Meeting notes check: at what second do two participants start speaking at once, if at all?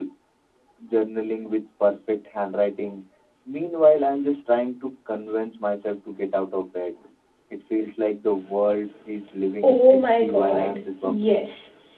9.6 s

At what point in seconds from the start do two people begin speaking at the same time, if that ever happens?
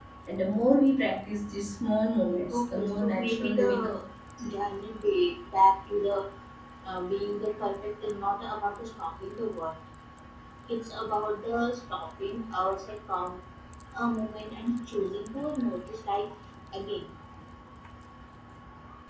2.5 s

